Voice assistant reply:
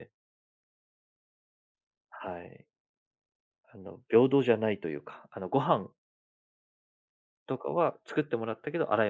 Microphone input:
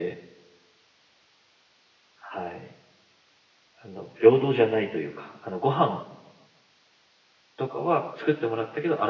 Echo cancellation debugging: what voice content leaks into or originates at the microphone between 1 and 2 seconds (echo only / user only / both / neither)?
neither